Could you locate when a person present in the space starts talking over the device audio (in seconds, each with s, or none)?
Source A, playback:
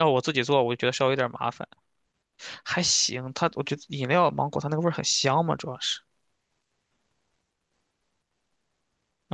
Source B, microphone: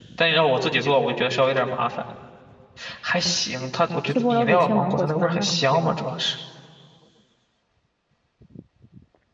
4.1 s